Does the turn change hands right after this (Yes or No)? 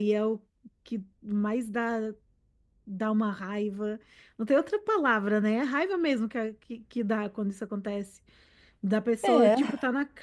No